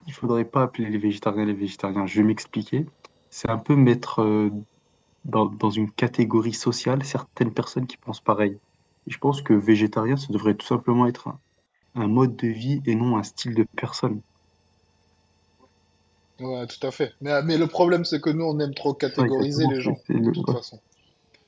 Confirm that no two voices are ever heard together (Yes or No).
No